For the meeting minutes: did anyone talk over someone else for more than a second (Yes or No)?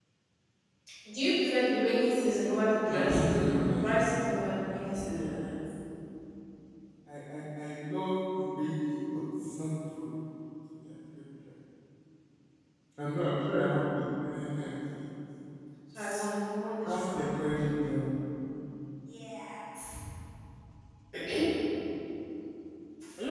Yes